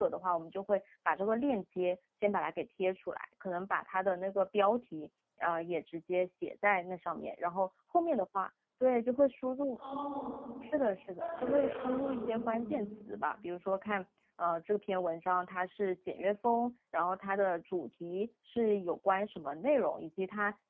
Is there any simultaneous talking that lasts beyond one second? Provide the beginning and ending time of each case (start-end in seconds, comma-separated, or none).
11.2-12.8